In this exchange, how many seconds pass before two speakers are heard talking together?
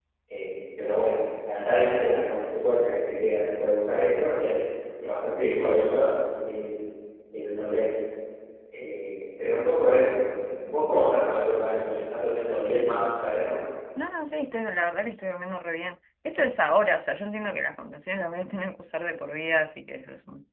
none

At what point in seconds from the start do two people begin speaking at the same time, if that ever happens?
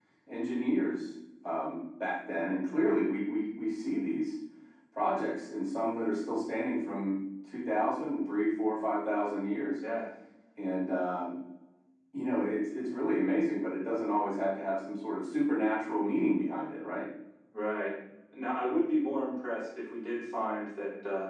none

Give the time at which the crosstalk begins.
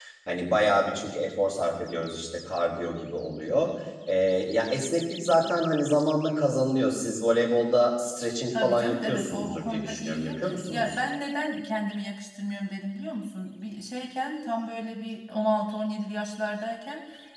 8.5 s

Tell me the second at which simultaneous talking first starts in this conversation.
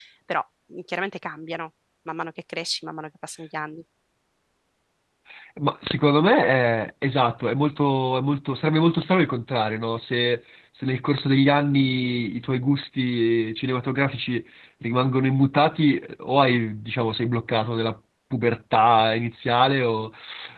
none

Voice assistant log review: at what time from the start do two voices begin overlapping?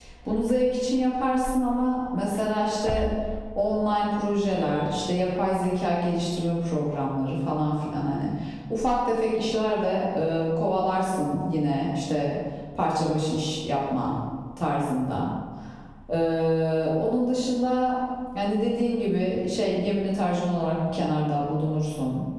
none

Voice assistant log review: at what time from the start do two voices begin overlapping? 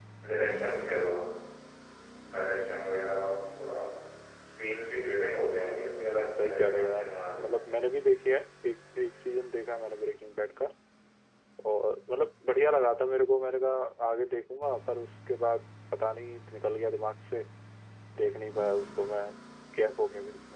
5.6 s

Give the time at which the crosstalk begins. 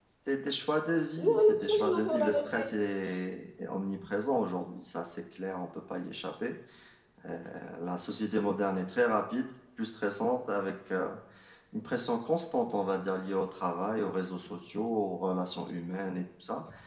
1.2 s

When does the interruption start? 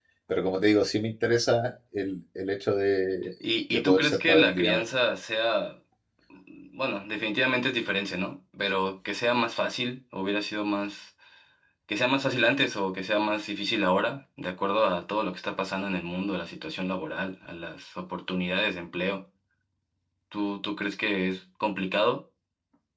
3.7 s

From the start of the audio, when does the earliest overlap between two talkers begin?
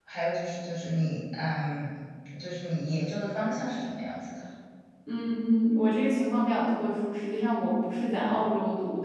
none

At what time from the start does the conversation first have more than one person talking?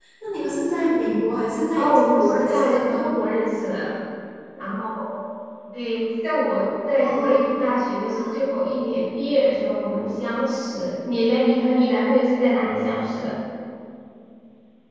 1.8 s

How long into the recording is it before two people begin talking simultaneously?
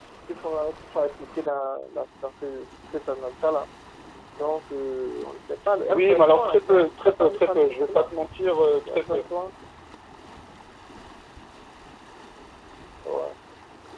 5.9 s

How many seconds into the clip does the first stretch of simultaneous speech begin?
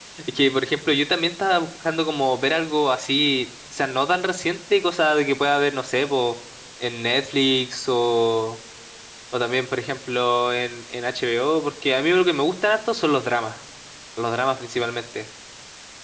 none

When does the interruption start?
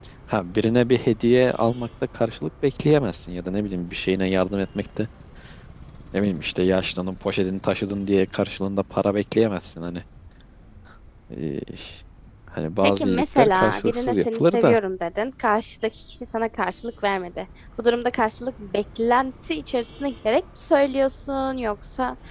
12.8 s

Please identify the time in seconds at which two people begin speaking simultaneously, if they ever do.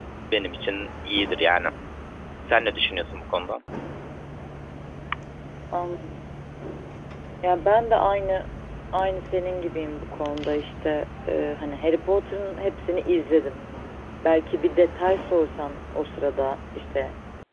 none

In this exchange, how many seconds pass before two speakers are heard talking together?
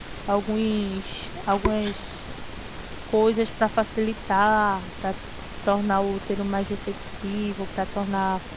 none

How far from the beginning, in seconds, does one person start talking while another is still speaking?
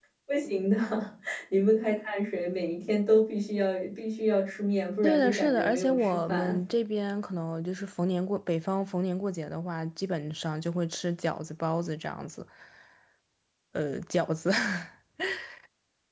5.0 s

